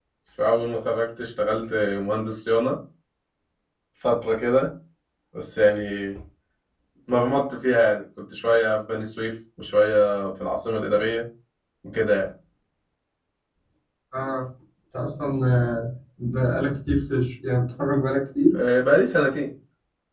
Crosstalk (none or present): none